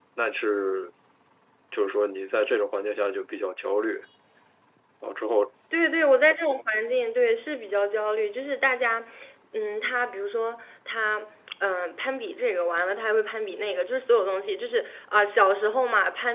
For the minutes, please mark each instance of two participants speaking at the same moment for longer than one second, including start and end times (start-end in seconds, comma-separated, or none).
none